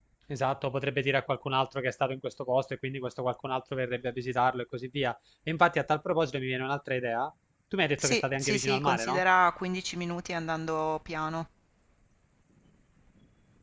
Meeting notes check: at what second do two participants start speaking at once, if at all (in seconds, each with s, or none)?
8.0 s